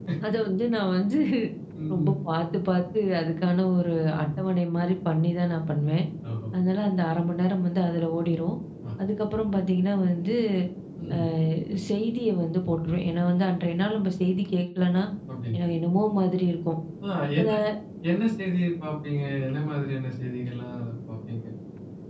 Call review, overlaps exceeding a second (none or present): none